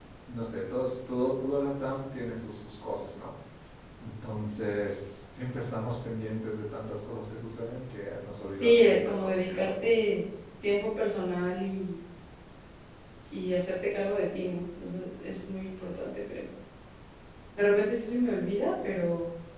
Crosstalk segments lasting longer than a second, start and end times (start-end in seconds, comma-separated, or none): 8.6-10.0